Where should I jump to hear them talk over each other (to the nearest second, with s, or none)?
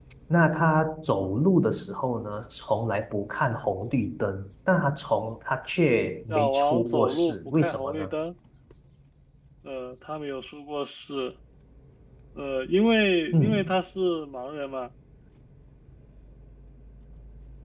6 s